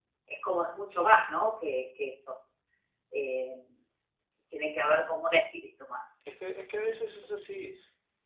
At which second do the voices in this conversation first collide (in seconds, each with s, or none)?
none